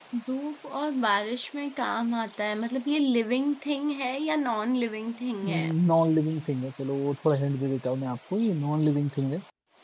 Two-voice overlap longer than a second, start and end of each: none

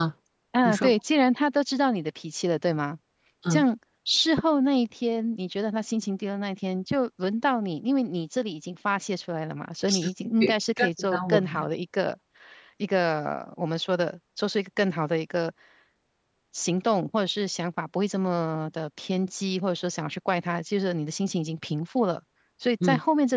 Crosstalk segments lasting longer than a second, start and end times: 10.4-11.6

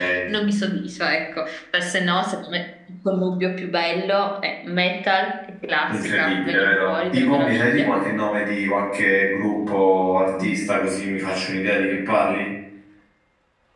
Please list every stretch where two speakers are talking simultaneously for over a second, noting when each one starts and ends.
5.9-8.1

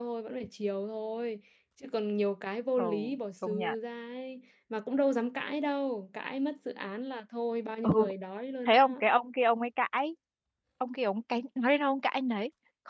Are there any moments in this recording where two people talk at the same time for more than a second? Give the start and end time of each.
none

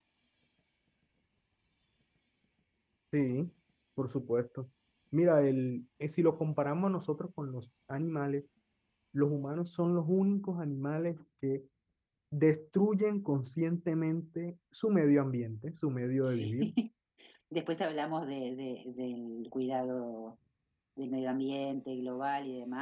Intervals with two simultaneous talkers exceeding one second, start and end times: none

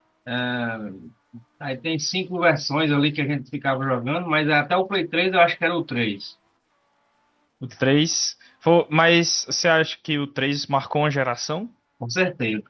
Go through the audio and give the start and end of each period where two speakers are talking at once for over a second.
none

